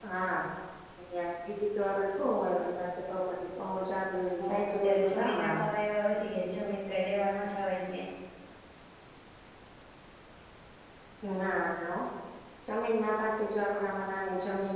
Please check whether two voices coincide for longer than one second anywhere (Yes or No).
Yes